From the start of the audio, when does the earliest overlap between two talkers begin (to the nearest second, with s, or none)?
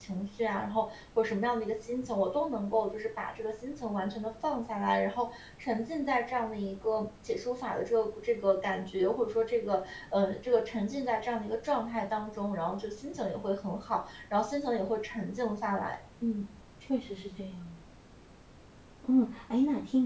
none